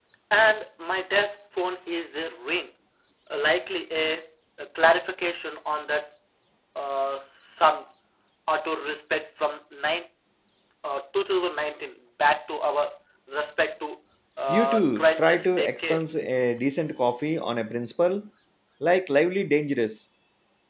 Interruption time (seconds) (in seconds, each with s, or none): 14.5 s